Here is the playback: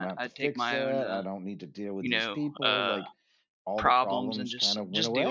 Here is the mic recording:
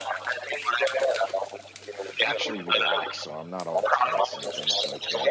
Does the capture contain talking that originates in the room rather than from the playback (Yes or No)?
Yes